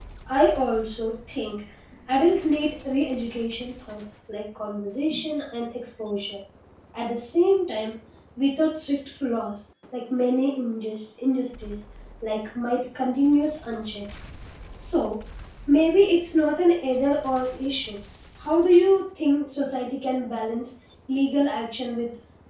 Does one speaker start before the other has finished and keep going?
No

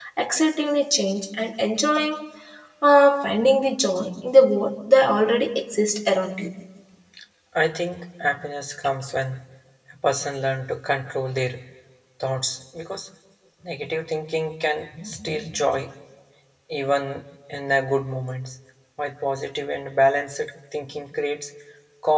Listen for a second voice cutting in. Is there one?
No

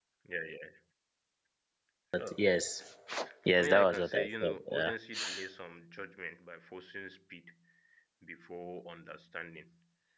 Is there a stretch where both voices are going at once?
Yes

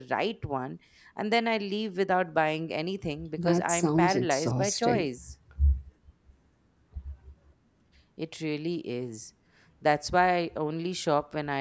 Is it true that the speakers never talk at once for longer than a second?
No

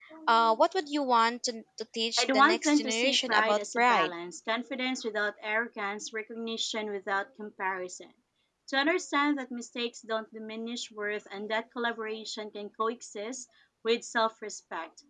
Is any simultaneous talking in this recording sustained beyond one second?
Yes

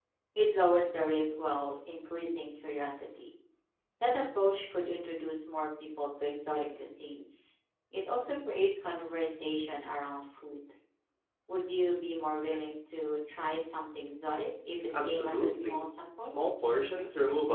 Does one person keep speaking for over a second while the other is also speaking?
Yes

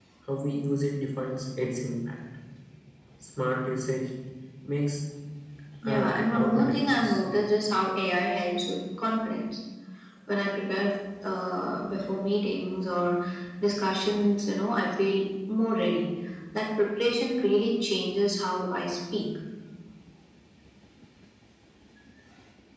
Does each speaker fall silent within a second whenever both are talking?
No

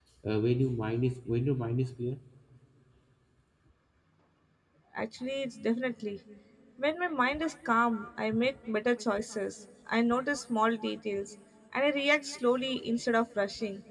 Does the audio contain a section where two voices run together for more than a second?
No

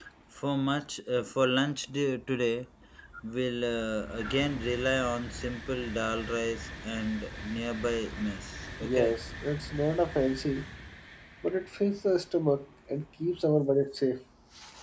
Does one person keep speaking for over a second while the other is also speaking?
No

